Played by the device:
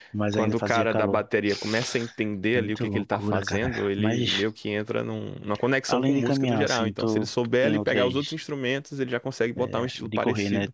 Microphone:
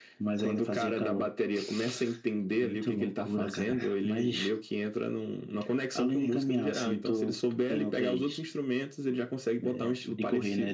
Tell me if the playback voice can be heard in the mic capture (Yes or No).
Yes